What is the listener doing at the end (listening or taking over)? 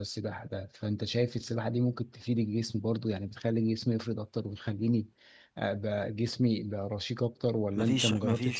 taking over